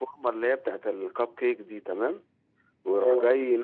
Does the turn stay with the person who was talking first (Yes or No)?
Yes